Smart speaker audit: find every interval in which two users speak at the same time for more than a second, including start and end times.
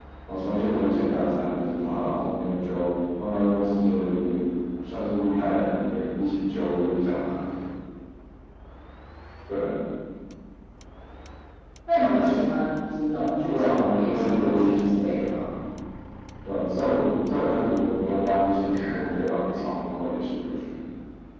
13.5-15.2

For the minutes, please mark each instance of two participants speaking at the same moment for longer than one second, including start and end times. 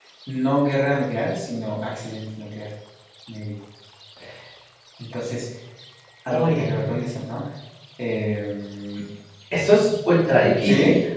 none

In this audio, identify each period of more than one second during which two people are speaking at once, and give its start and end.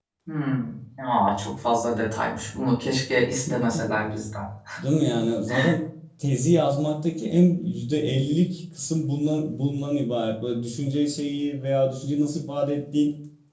none

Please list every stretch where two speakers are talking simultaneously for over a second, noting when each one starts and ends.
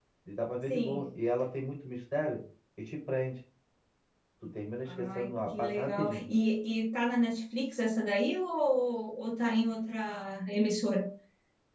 4.9-6.3

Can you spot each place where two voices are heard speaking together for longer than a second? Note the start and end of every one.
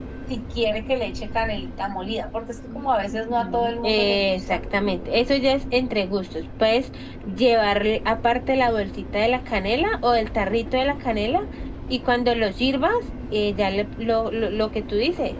3.1-4.6

